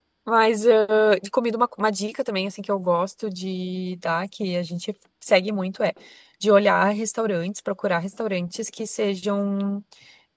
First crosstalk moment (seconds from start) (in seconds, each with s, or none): none